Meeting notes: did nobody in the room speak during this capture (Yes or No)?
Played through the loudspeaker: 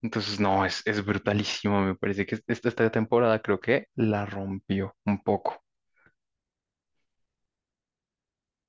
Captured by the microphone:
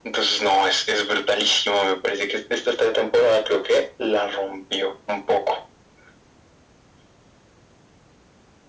Yes